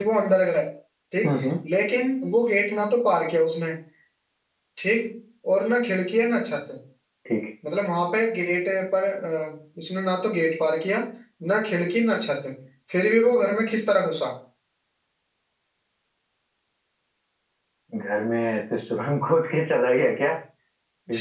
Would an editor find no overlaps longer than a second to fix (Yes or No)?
Yes